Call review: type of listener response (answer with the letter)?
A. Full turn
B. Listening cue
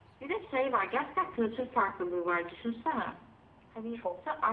B